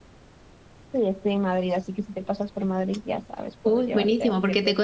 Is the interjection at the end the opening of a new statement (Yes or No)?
Yes